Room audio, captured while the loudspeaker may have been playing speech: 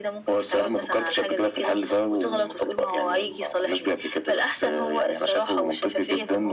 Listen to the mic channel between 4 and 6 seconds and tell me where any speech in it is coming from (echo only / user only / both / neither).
echo only